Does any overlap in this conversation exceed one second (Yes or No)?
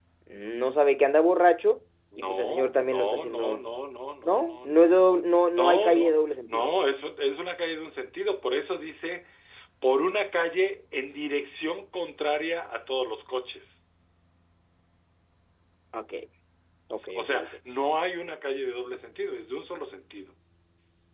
Yes